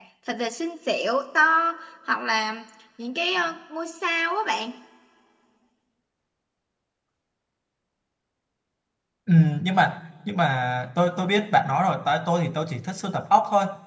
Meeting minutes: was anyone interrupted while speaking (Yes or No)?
No